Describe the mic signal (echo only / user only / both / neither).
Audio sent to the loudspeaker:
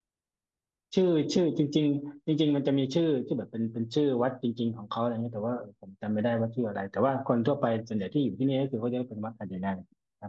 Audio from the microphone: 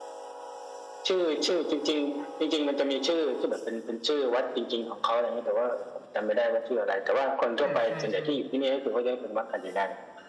both